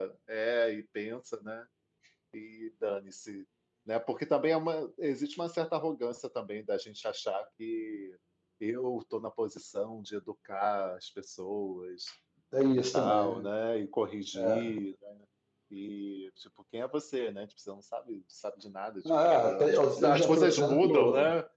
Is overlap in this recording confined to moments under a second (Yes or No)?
No